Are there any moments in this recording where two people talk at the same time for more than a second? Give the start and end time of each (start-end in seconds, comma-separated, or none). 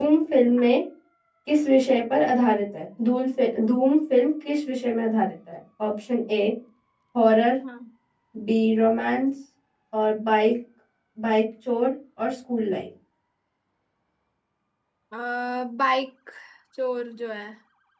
none